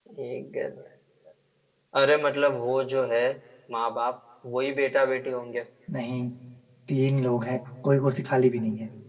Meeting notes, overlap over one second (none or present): none